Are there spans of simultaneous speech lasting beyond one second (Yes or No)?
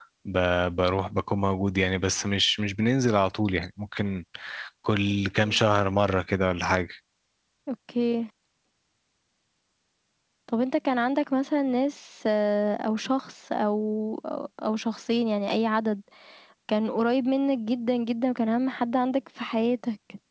No